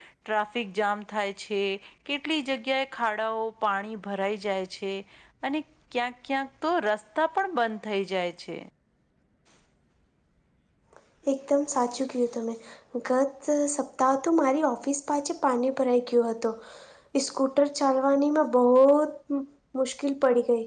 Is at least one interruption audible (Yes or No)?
No